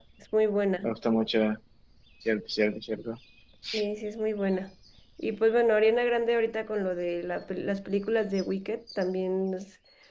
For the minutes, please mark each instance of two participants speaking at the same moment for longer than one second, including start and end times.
none

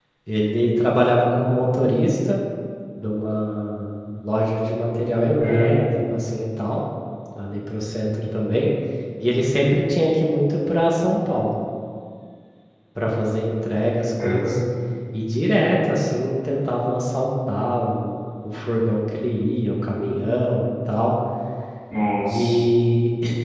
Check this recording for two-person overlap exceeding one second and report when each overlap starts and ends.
none

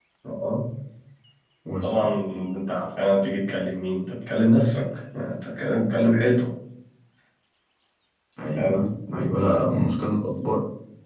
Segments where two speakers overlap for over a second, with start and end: 8.5-9.8

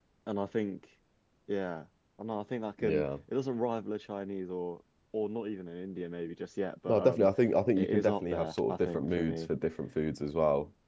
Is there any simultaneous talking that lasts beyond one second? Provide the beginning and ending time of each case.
7.8-9.5

